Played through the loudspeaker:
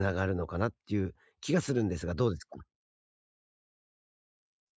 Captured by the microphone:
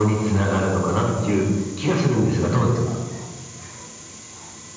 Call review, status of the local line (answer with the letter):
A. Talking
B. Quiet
B